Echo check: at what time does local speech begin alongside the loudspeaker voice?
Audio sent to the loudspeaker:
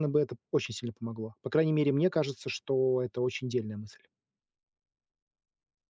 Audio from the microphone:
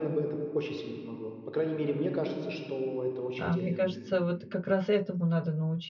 3 s

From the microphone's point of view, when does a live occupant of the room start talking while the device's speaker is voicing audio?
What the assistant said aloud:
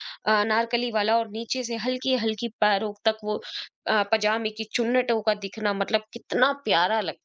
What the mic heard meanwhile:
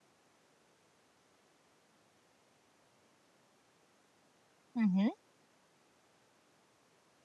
5 s

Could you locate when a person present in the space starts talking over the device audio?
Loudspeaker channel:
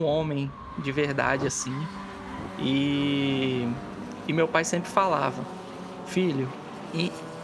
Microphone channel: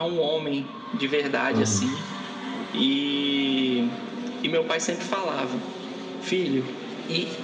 1 s

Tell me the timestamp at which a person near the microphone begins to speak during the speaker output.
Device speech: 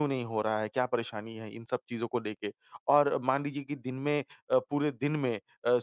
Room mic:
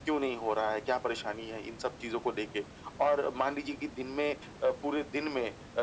none

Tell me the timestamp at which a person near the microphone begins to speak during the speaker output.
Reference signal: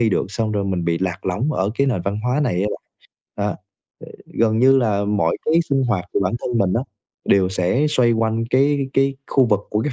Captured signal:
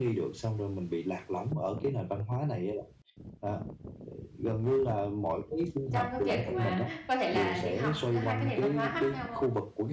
6 s

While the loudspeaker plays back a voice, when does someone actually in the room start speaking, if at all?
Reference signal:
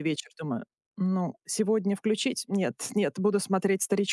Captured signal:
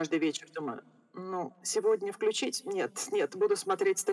none

